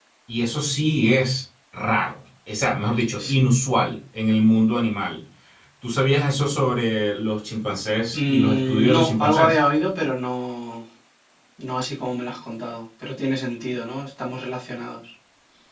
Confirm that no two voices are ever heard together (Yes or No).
No